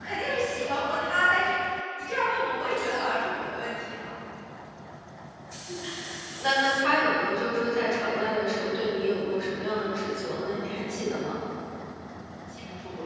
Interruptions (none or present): none